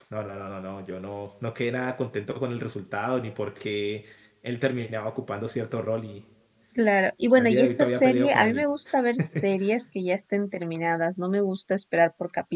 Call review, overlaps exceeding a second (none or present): present